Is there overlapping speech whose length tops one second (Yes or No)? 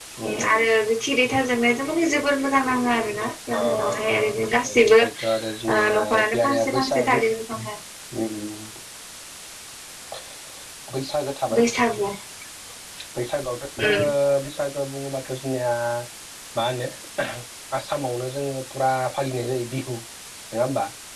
Yes